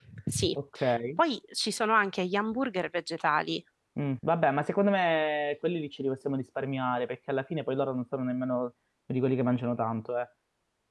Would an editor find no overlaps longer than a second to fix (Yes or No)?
Yes